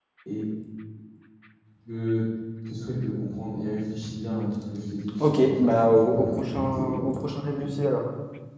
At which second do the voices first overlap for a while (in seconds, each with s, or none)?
5.2 s